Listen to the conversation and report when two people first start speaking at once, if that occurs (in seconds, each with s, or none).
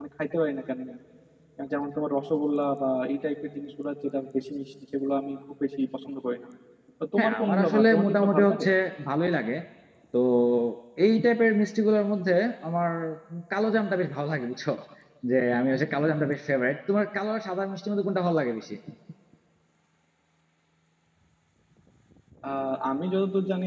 7.2 s